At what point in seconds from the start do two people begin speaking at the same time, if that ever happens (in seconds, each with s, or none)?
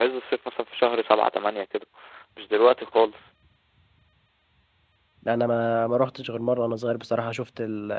none